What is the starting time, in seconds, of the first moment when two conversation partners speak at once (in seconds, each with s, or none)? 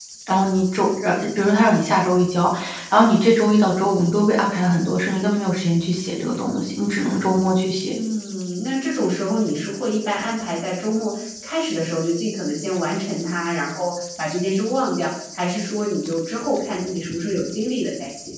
none